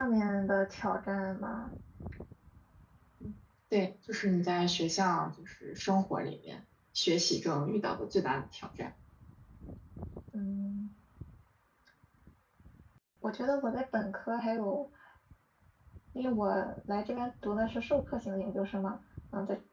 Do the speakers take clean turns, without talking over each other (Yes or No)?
Yes